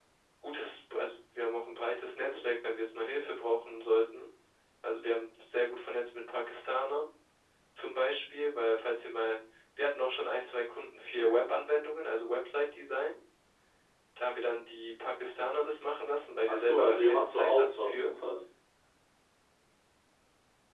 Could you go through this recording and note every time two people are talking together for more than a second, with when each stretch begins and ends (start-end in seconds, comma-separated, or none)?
16.5-18.1